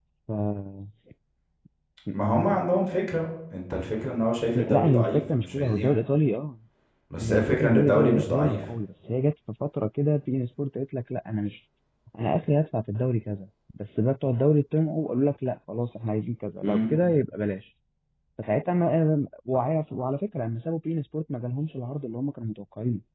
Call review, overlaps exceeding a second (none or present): present